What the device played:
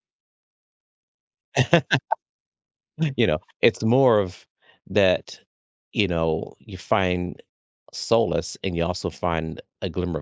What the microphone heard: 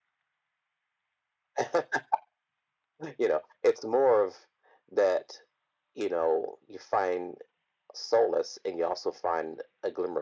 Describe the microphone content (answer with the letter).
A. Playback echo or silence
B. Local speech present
A